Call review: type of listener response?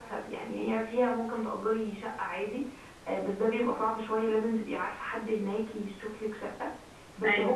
listening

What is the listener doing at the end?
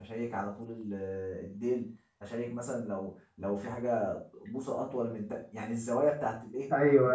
taking over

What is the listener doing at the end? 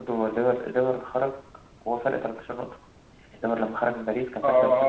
taking over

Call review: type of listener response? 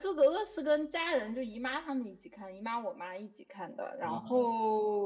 listening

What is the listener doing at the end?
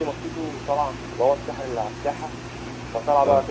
listening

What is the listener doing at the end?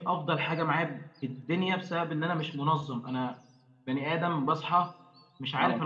listening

